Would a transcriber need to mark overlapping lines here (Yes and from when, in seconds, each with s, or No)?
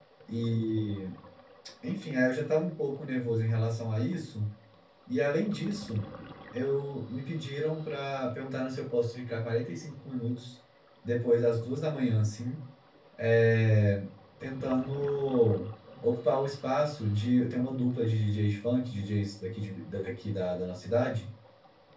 No